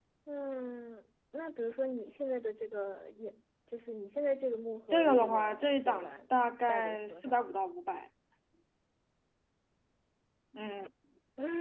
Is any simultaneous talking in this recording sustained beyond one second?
Yes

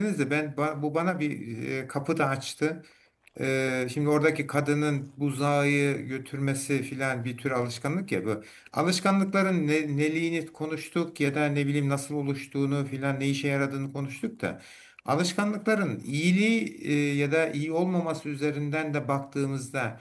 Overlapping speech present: No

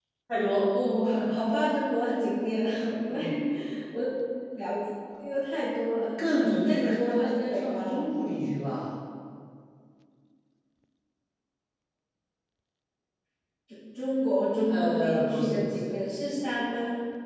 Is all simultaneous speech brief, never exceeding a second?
No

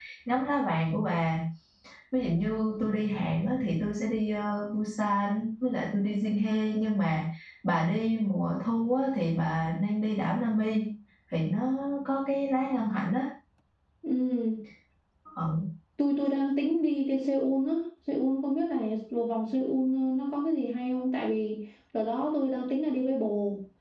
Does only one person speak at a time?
Yes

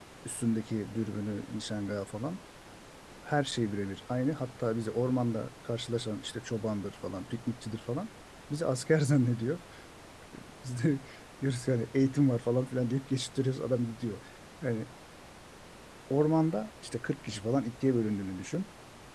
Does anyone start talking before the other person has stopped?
No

